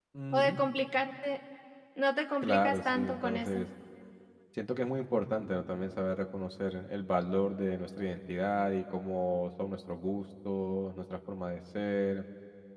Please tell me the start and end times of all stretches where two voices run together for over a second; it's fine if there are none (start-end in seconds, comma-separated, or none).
2.4-3.6